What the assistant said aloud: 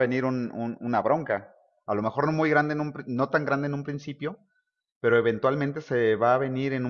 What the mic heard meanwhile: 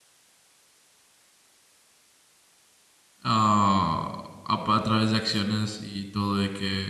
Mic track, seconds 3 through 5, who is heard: user only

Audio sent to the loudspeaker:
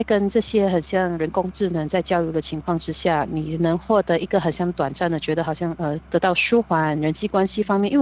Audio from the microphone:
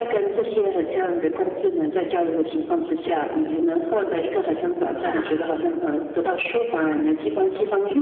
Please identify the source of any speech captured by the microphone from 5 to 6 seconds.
both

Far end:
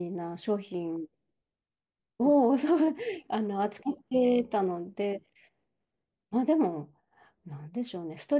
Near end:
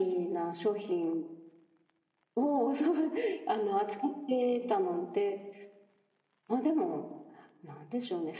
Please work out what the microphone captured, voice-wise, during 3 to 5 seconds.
echo only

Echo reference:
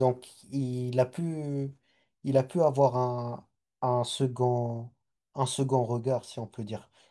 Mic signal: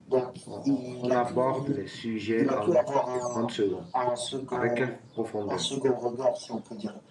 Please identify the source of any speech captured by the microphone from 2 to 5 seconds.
both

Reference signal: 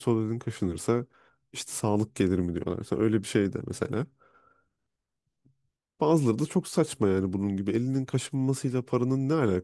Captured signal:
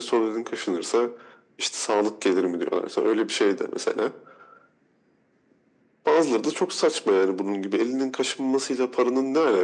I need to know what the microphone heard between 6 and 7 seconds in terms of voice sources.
echo only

